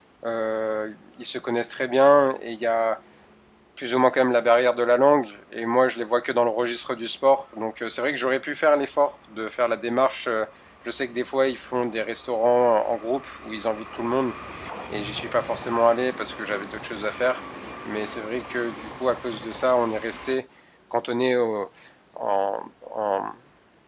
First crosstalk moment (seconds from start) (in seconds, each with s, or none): none